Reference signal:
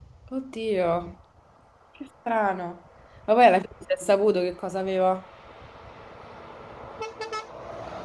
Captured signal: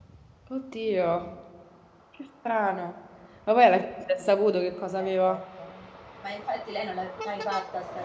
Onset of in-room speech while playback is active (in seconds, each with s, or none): 5.0 s